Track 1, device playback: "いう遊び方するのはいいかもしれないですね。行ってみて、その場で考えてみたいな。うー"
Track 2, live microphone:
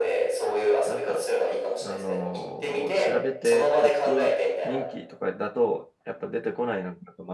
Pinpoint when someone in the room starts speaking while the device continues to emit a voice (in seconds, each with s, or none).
0.8 s